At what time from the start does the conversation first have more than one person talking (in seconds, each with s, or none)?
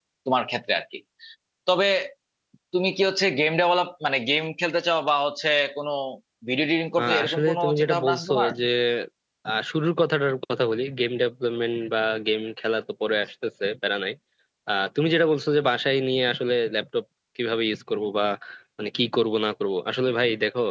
7.0 s